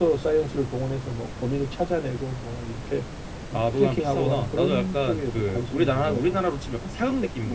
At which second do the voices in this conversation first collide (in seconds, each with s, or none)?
3.5 s